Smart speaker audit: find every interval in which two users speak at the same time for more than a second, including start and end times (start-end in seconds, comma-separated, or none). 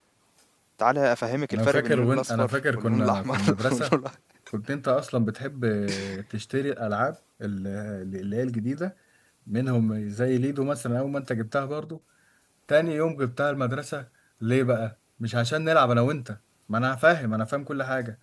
1.5-3.9